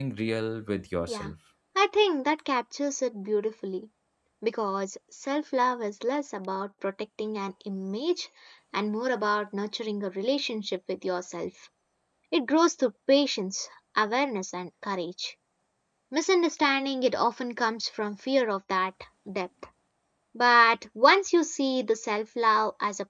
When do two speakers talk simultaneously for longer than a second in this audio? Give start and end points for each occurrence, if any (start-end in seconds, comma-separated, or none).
none